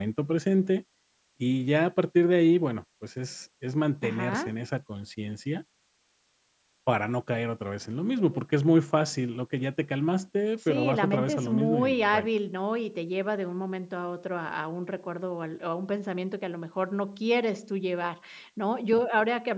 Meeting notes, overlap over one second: present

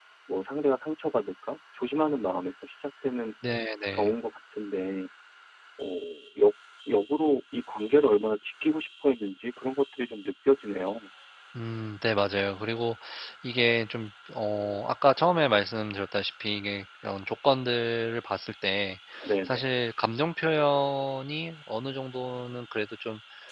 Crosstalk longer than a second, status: none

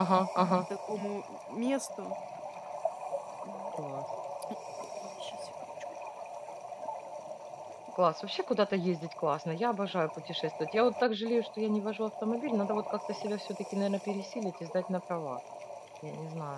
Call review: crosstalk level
none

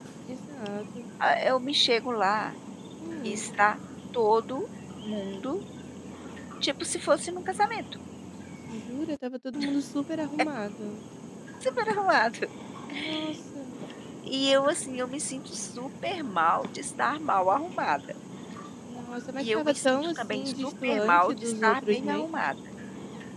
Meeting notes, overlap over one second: present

